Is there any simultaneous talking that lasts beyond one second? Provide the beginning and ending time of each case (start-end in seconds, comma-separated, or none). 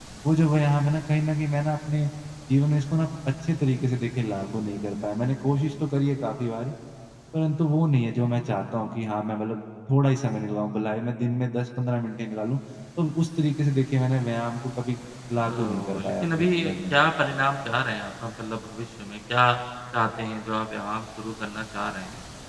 15.4-16.9